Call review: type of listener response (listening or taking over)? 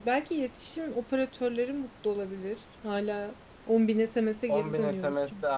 taking over